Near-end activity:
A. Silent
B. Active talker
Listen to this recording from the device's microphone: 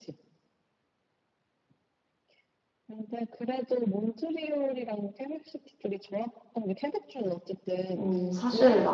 B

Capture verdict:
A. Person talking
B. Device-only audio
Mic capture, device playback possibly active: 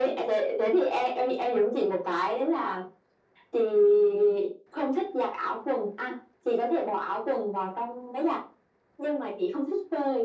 B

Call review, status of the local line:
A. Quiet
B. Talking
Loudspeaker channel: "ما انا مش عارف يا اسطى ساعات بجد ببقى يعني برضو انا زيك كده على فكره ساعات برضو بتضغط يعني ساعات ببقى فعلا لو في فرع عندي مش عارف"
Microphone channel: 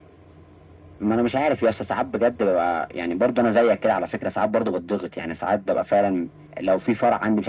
A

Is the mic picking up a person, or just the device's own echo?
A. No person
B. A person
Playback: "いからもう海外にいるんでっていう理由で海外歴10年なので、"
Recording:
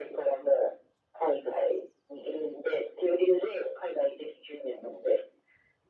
A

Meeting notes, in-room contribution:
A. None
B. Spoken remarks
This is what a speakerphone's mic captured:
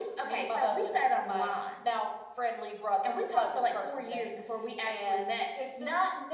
A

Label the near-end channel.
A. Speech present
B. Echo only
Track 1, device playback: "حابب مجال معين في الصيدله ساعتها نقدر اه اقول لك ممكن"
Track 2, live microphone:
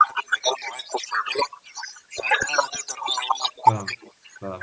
A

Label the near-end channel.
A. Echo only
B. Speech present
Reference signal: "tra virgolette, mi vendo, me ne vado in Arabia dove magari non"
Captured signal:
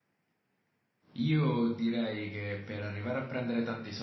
B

